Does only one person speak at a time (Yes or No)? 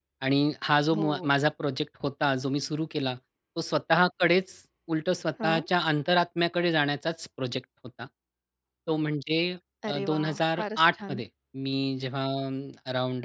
No